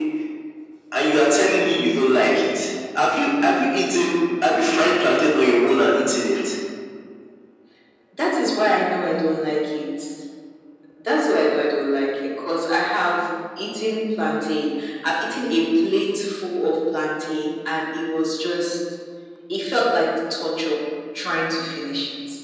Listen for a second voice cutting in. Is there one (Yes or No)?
No